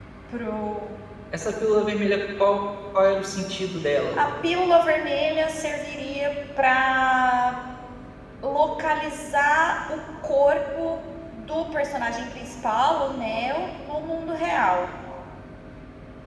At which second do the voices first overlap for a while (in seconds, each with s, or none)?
none